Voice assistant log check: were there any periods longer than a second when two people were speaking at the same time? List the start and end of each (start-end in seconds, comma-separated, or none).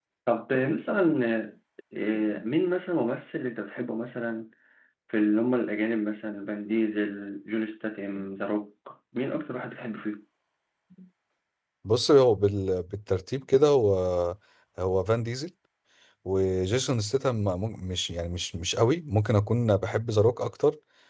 none